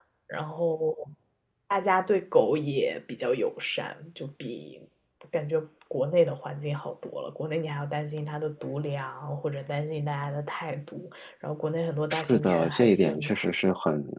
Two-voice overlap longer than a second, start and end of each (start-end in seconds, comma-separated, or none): 12.1-13.4